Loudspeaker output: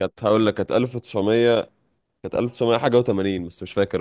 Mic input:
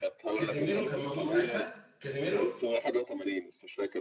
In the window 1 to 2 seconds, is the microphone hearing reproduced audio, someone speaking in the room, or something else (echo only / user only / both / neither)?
both